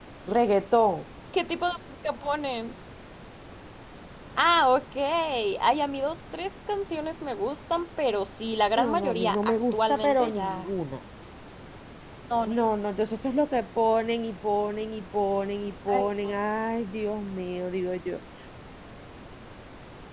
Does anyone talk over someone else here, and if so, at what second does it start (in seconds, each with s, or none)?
8.8 s